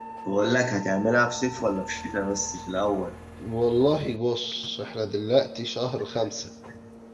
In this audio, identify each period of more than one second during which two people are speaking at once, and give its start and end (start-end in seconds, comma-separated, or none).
none